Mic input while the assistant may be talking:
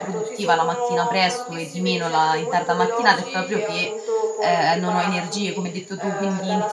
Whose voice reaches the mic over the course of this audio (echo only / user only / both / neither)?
both